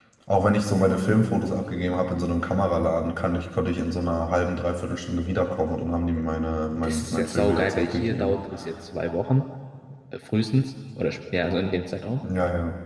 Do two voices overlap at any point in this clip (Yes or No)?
Yes